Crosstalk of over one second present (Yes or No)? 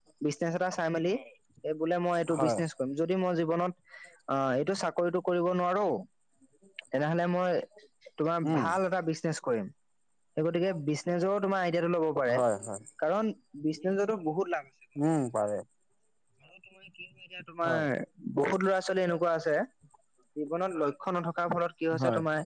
No